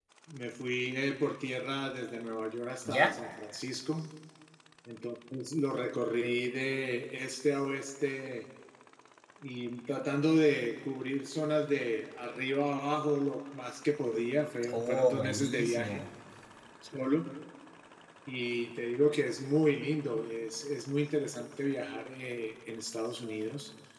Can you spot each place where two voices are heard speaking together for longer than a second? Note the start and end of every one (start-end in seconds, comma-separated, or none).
14.7-16.0